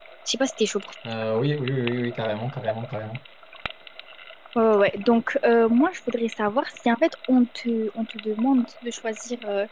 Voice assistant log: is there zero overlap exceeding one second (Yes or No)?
Yes